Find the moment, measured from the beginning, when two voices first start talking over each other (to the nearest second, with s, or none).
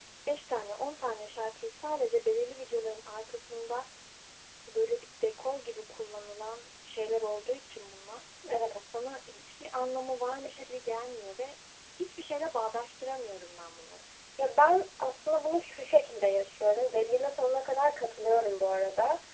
none